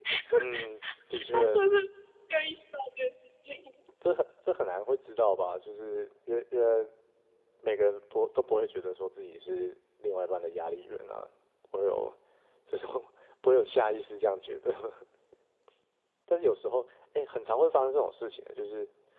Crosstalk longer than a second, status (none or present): none